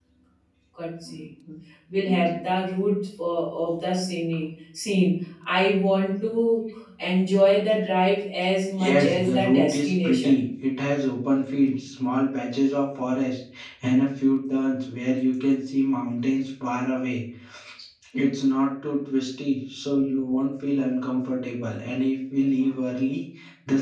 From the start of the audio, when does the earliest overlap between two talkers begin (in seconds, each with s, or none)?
8.8 s